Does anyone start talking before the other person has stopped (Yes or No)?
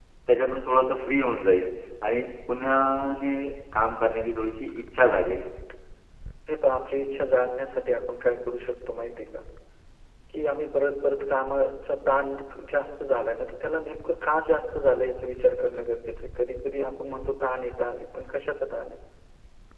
No